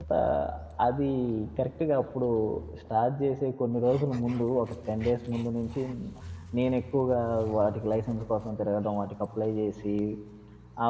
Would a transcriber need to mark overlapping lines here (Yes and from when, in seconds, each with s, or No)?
No